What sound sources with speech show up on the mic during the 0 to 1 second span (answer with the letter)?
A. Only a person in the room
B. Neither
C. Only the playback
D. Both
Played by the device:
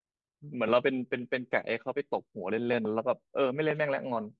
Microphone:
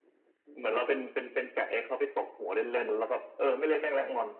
C